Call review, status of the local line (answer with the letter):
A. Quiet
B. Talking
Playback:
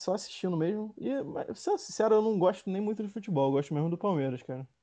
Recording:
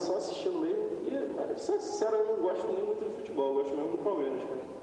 A